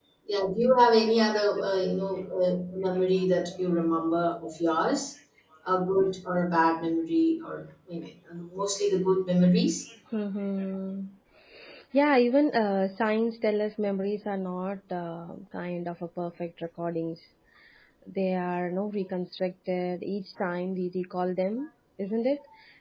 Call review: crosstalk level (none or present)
none